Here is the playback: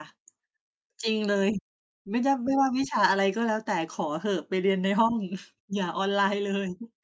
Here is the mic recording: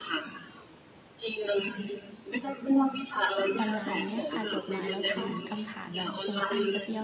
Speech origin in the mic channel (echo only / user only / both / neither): both